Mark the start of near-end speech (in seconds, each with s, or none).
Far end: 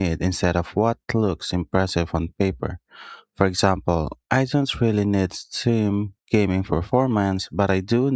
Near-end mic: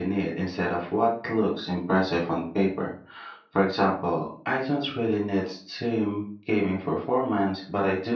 none